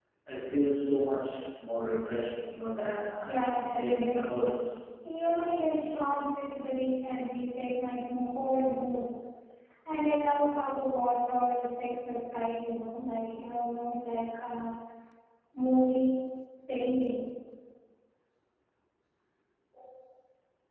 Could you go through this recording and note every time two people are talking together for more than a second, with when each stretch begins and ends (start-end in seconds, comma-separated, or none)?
3.2-4.6